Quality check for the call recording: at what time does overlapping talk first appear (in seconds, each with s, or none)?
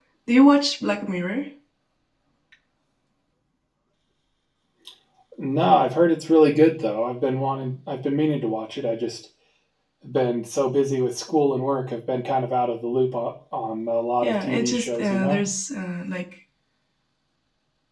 14.2 s